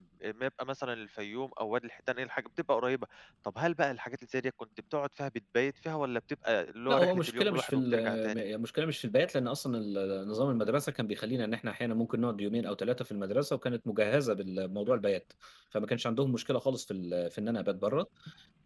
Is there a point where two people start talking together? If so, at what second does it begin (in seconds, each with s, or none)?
6.9 s